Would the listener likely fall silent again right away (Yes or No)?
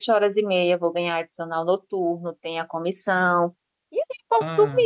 Yes